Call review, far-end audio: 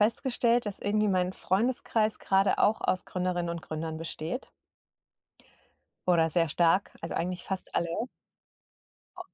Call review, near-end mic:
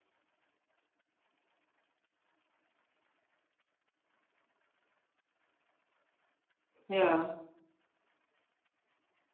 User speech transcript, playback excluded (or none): Ja.